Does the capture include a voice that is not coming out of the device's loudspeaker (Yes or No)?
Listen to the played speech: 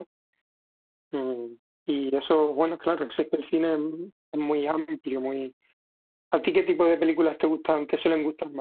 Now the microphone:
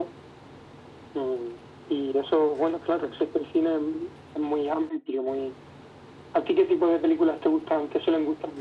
No